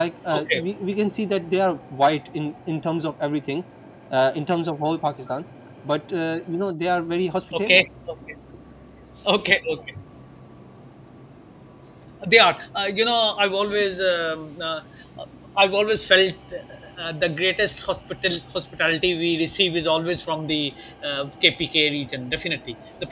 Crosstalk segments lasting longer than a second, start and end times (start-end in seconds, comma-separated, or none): none